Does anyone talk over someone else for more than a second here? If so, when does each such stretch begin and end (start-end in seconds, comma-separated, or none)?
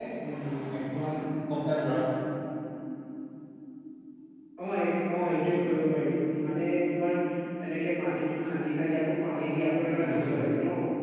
none